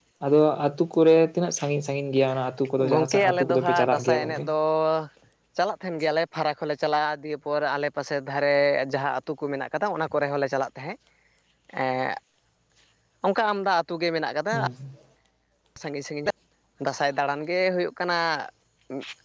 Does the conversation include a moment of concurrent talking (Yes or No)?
Yes